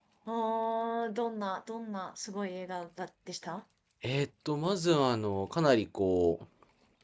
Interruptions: none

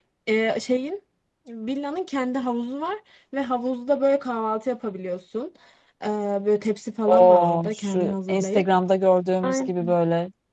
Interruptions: present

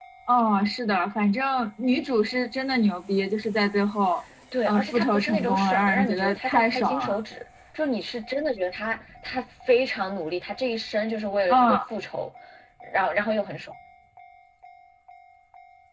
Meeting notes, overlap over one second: present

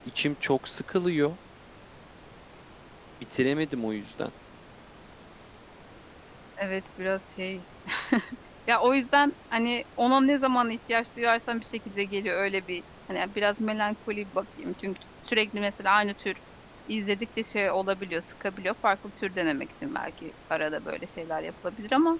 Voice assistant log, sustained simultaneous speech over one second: none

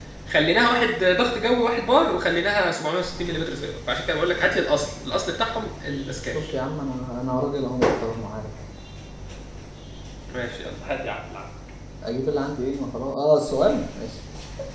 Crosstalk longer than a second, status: none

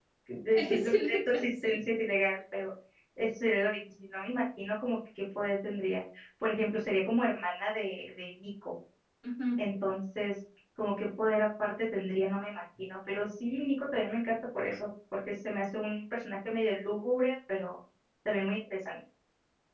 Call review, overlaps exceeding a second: present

